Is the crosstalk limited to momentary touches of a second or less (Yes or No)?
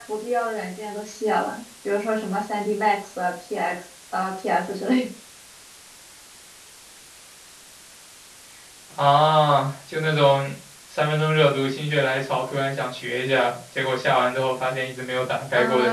Yes